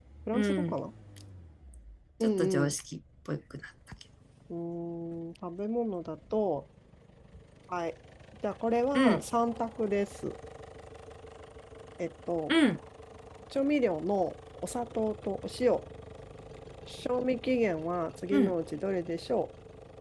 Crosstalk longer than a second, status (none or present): none